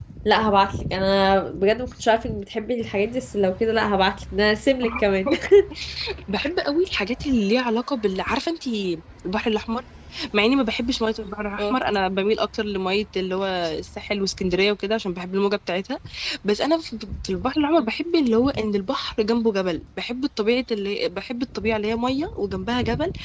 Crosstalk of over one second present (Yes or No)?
No